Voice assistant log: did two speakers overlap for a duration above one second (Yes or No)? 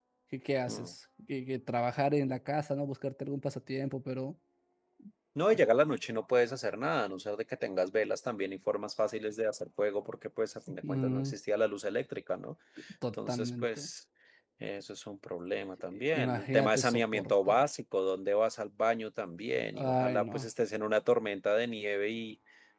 Yes